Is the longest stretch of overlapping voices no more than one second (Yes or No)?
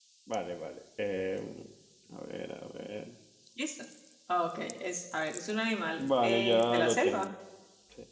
No